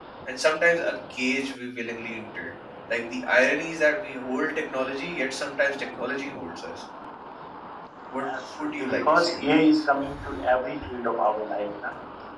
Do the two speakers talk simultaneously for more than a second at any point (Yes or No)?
Yes